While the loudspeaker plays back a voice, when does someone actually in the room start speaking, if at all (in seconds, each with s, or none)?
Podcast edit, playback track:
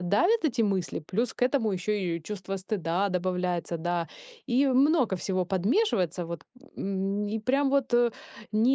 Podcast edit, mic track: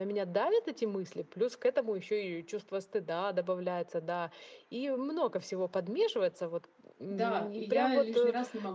7.1 s